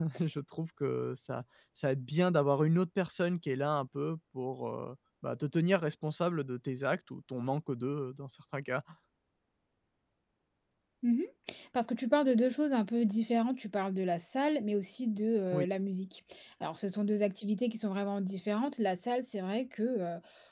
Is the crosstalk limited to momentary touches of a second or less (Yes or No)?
Yes